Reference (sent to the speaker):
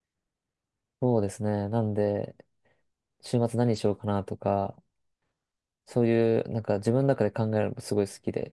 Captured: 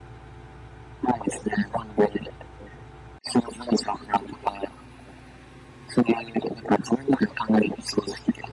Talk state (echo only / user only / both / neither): echo only